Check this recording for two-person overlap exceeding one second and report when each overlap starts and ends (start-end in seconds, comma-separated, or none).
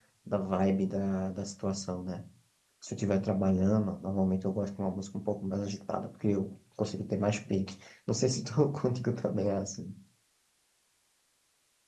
none